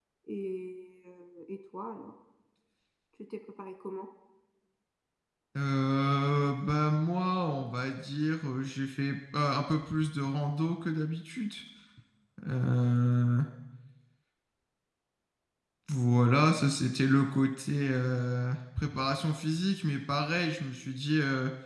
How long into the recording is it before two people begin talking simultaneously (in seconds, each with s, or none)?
none